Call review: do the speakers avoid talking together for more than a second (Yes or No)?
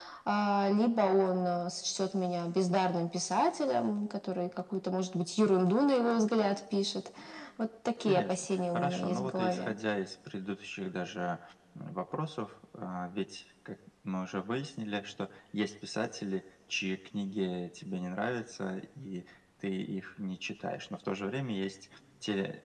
No